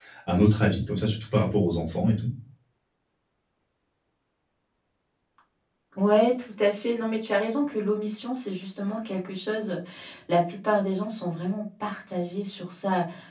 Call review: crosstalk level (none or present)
none